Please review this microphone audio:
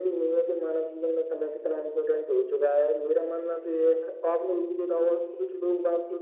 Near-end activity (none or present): none